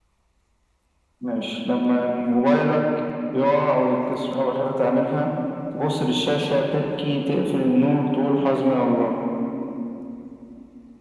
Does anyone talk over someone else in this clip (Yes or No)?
No